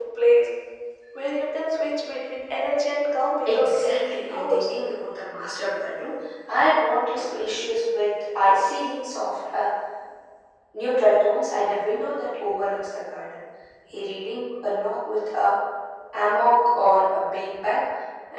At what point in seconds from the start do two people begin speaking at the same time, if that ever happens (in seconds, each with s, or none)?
3.5 s